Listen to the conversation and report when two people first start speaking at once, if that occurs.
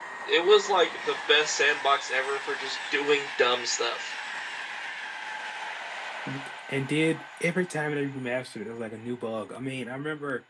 none

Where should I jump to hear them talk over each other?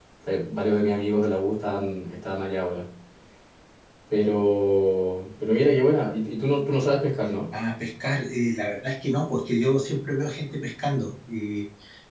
none

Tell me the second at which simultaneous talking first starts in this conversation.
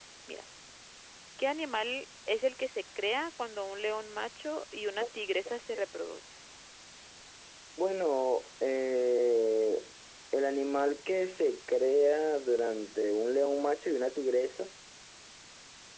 none

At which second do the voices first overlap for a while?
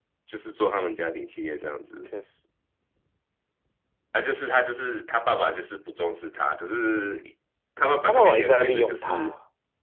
8.1 s

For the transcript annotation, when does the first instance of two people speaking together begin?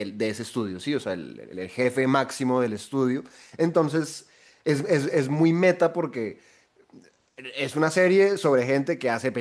none

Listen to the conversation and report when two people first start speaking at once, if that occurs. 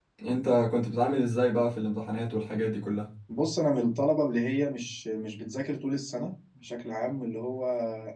none

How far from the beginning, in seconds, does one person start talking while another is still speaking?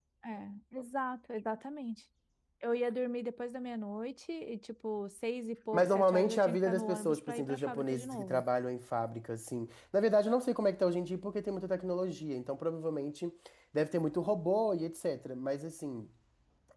5.7 s

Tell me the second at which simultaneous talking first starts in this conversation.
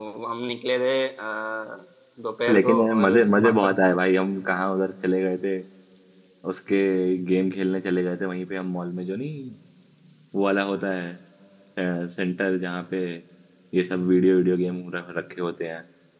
2.5 s

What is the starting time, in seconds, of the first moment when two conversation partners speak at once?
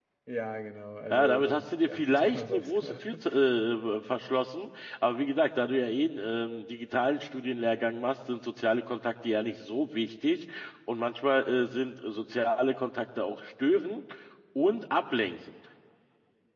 1.1 s

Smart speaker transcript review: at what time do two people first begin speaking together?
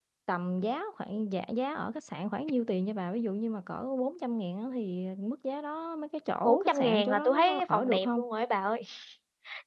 6.4 s

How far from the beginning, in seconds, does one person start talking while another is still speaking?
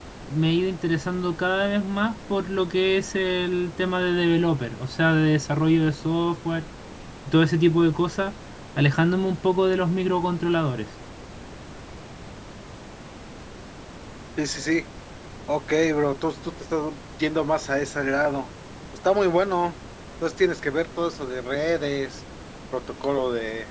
none

